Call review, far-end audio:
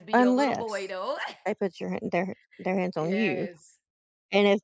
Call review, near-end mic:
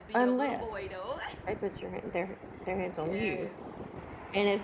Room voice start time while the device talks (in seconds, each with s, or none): none